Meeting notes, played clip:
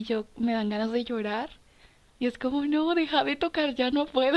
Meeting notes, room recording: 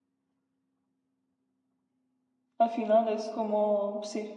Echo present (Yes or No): No